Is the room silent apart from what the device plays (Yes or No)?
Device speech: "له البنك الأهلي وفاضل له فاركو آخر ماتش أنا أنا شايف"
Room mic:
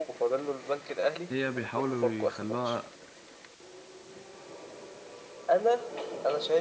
No